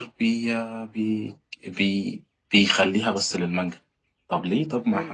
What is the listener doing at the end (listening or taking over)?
taking over